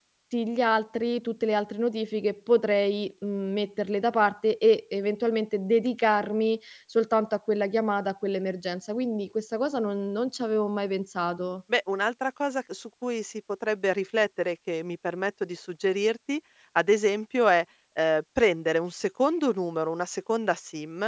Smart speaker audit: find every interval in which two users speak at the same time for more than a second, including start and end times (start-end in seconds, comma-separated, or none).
none